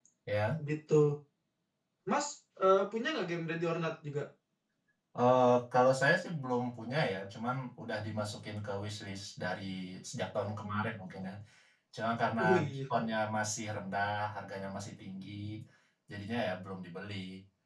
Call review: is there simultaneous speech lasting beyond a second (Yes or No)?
No